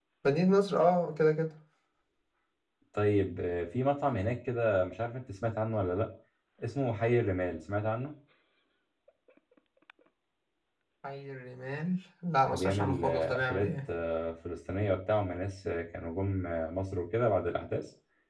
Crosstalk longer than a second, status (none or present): present